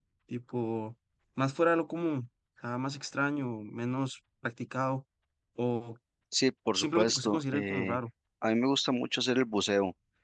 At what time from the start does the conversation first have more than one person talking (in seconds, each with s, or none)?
6.7 s